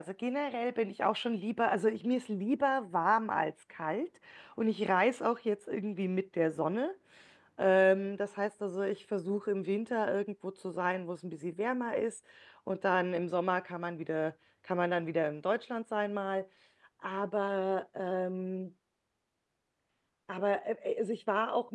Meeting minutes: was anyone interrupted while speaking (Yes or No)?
No